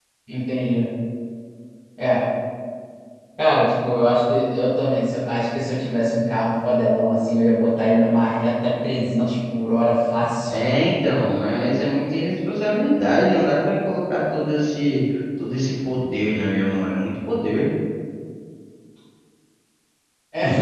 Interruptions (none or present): none